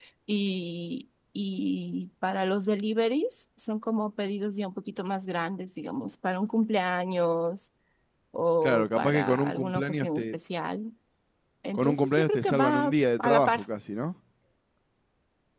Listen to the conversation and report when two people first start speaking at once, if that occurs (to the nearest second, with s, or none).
9 s